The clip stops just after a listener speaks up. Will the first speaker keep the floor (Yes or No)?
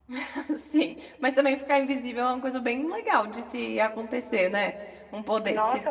No